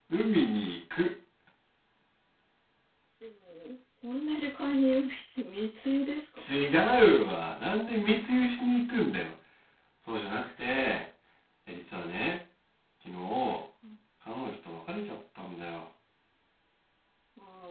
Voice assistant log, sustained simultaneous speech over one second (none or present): none